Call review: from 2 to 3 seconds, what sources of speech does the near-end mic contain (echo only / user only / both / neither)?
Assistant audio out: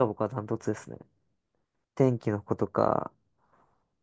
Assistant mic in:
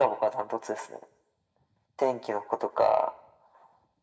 echo only